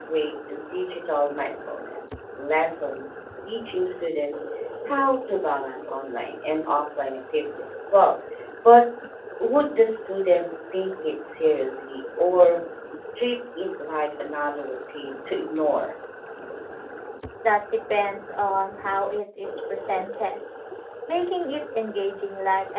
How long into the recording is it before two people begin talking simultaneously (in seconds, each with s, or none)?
none